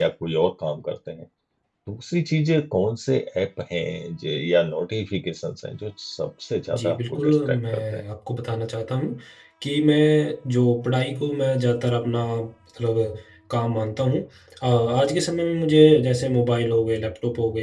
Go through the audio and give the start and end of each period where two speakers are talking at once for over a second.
6.7-8.0

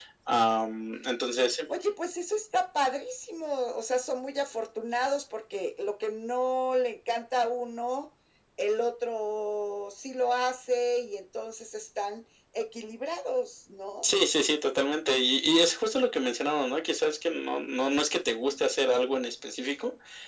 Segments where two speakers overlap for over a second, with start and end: none

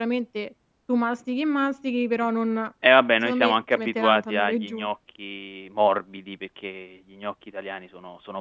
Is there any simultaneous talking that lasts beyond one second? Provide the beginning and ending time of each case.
3.2-4.9

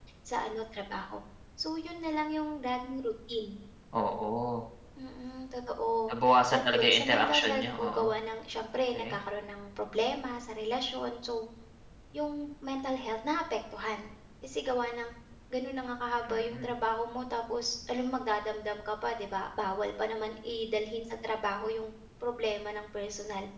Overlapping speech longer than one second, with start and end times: 6.5-8.1

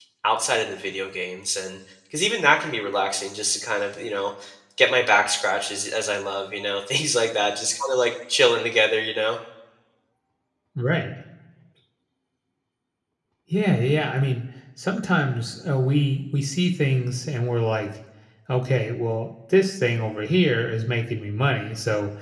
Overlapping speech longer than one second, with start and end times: none

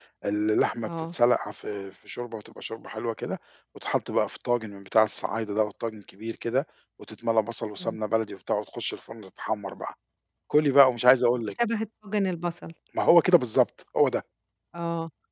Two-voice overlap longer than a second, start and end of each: none

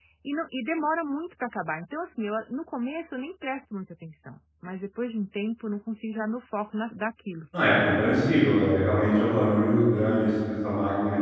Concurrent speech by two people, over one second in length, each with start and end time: none

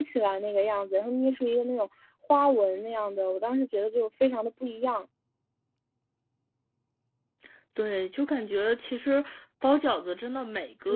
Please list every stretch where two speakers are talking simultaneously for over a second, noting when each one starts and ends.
none

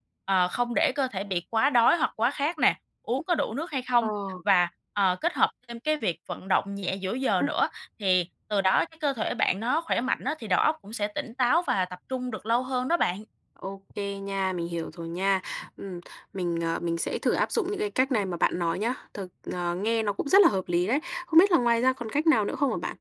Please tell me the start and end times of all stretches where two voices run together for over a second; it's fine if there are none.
none

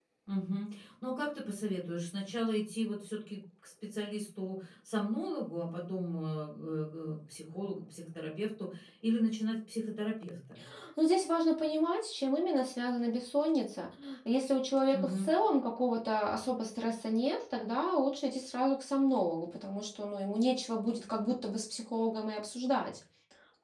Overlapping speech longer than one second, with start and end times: none

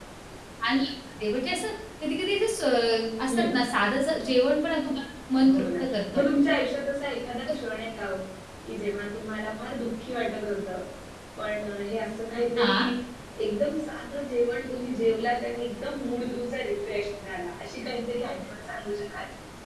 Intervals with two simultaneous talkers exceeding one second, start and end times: none

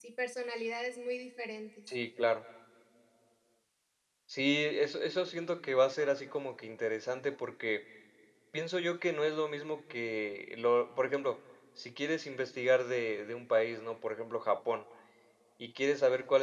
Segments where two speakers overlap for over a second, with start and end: none

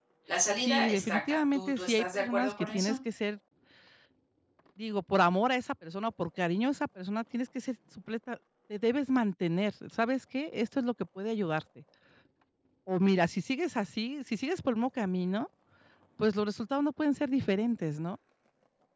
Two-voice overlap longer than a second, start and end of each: 0.6-3.0

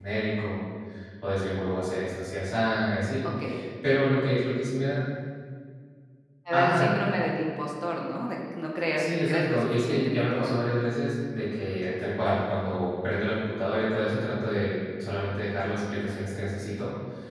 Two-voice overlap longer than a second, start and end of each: 9.0-10.6

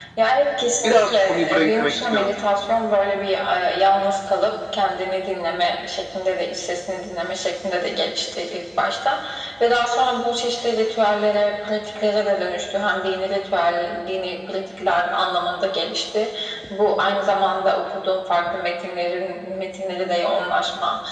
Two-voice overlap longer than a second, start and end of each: 0.8-2.3

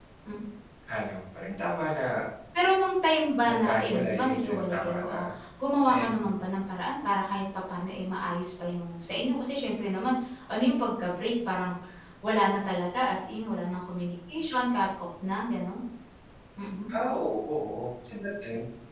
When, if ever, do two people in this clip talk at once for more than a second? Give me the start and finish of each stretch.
3.5-5.2

